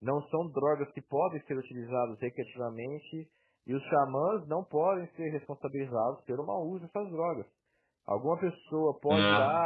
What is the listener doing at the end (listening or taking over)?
listening